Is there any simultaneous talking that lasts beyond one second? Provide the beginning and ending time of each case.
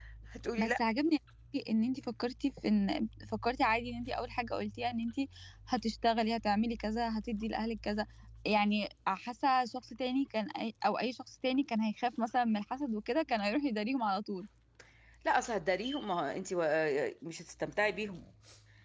none

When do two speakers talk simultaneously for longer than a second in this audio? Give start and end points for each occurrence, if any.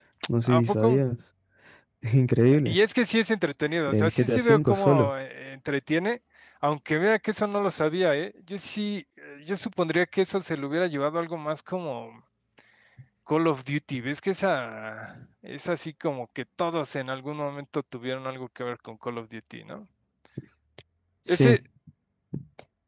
3.9-5.1

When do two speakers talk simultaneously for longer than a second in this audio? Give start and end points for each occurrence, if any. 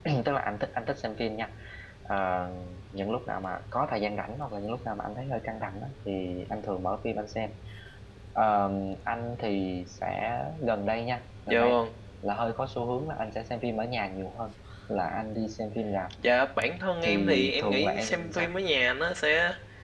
17.0-18.5

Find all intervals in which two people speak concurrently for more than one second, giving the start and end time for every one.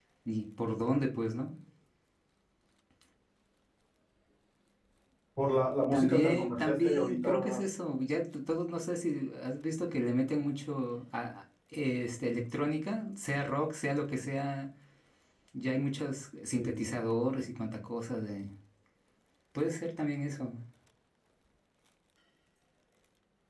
5.9-7.6

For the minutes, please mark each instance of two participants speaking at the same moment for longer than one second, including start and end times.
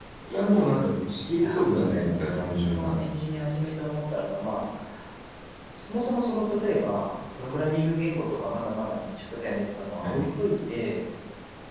1.4-3.0

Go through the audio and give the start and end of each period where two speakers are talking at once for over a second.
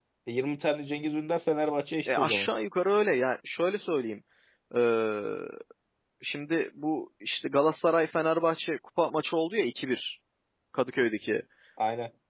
none

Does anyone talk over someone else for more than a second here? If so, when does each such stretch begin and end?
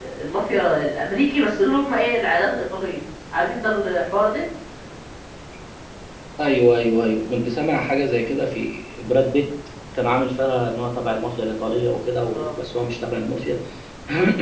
none

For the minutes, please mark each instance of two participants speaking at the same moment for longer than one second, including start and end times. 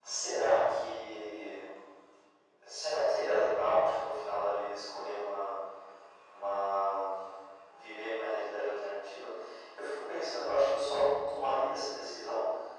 none

